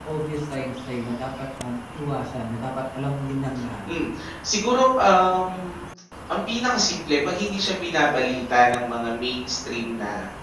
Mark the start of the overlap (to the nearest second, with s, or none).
none